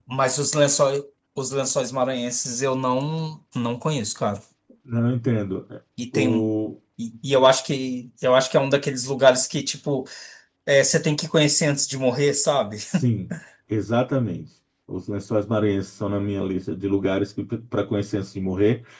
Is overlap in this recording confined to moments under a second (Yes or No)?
Yes